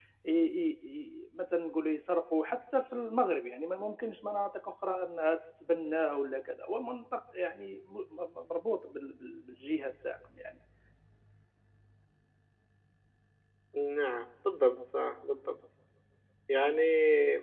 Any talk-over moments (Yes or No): No